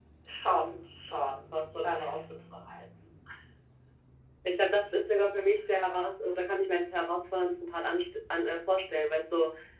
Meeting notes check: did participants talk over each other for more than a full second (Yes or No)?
No